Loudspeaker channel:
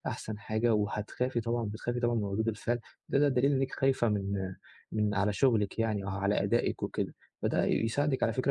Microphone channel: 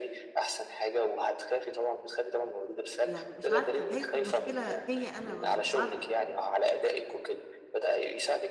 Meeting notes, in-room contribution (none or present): present